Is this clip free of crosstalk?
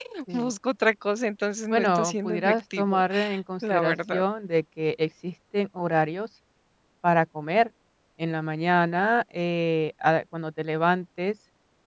No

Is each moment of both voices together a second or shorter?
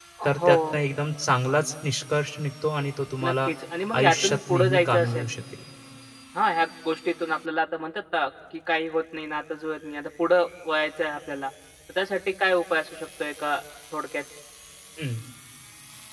No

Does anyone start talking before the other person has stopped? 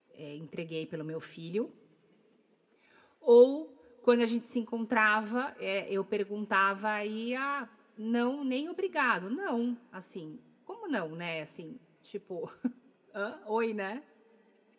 No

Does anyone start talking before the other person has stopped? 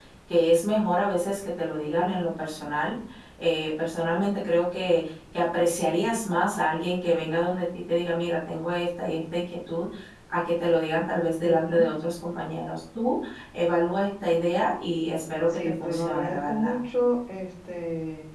Yes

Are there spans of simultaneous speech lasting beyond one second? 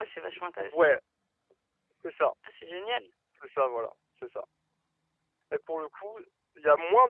No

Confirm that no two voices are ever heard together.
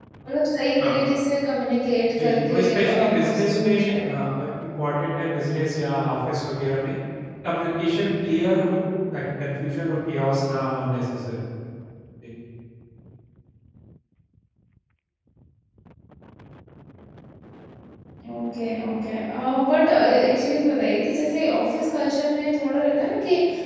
No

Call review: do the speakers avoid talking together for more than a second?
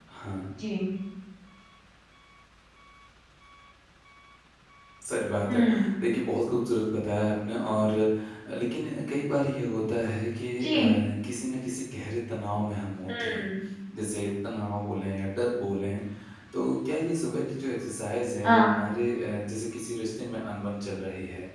Yes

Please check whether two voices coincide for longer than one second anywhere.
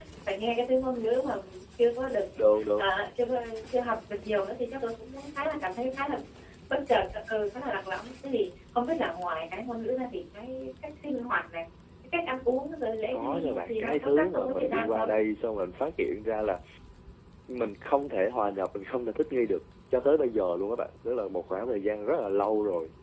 Yes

